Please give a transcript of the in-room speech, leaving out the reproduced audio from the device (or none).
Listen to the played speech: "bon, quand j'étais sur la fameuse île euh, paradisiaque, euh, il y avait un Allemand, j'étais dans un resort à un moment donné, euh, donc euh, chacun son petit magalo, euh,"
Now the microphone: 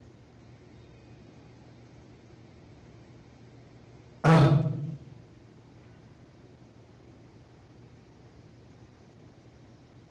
Ah,